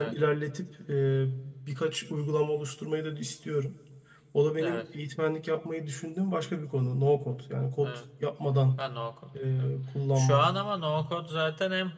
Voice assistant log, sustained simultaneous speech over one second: none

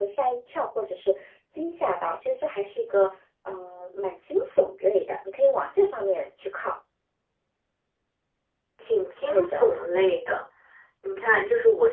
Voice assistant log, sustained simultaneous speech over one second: none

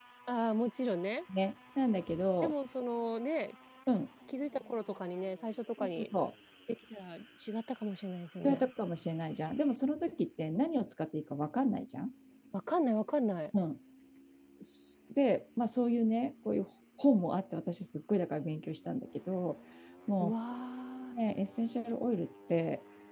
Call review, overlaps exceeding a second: none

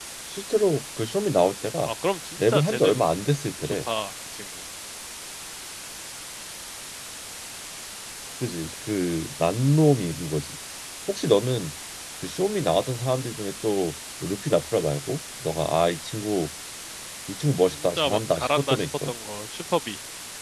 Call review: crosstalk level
present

